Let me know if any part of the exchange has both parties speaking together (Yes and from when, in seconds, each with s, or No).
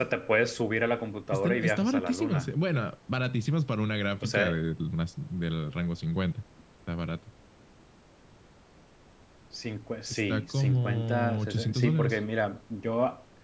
Yes, from 1.3 s